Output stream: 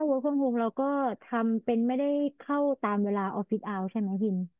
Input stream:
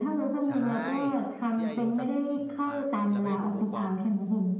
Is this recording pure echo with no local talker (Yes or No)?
No